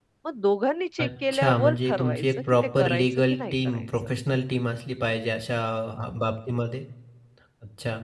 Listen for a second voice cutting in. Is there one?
Yes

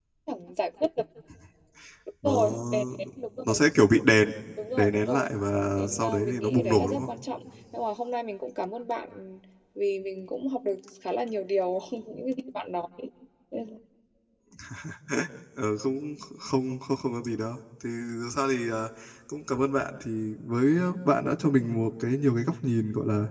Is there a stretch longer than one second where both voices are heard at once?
Yes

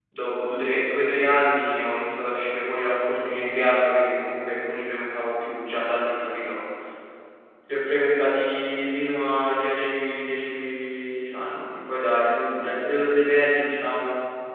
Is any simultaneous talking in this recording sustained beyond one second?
No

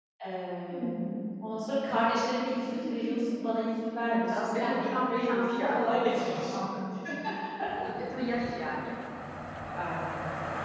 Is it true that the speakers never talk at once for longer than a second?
No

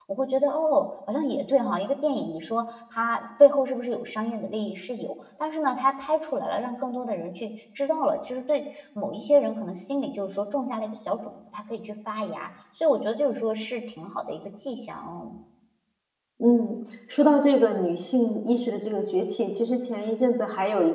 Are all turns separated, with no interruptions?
Yes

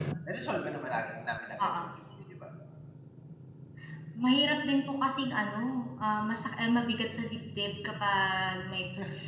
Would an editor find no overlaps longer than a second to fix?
Yes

